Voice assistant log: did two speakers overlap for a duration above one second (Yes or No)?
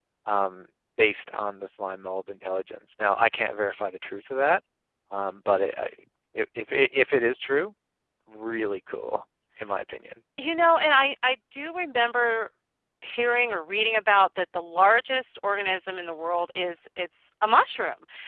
No